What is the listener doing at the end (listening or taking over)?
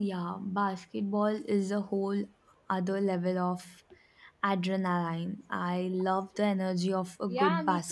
taking over